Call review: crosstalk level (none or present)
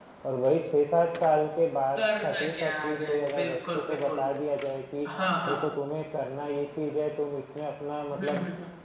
present